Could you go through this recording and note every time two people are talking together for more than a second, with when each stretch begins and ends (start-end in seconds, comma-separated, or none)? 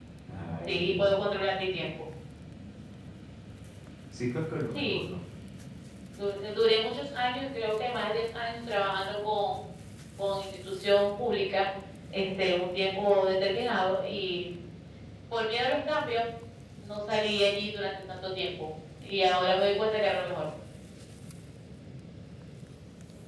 none